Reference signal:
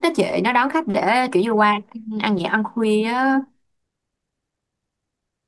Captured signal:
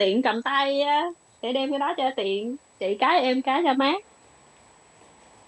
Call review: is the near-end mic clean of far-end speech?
Yes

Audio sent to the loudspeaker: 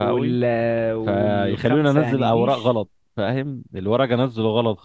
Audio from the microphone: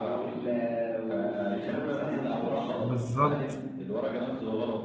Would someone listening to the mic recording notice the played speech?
Yes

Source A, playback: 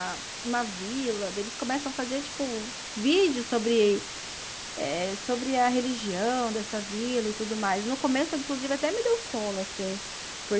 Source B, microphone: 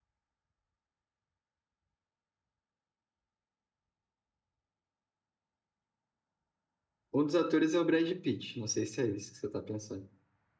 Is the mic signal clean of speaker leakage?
Yes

